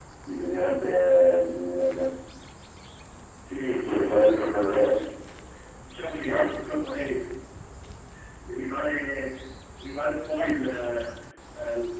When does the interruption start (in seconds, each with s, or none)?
3.7 s